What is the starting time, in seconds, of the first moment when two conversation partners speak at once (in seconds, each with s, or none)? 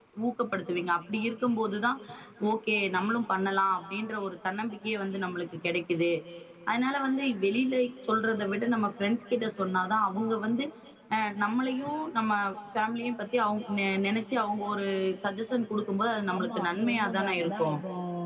16.3 s